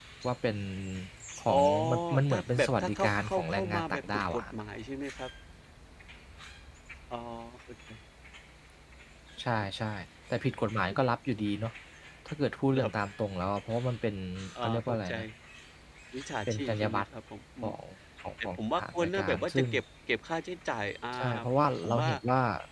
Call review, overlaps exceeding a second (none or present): present